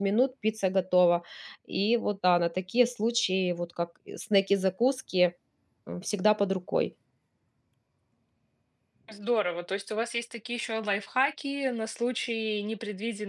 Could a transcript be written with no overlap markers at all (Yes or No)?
Yes